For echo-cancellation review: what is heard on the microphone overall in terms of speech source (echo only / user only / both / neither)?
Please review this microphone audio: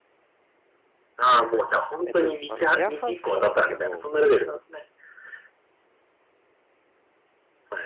both